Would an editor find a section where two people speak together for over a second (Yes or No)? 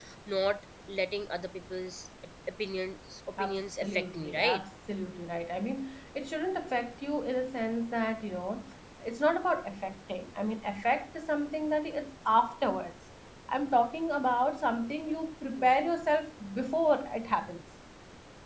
Yes